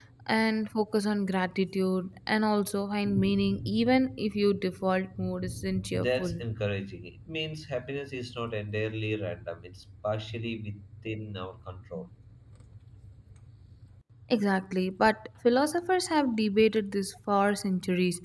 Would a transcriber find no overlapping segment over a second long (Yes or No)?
Yes